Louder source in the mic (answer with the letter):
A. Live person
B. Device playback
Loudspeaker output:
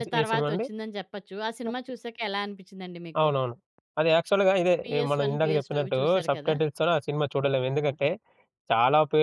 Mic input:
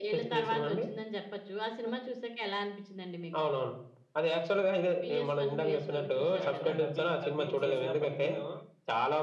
B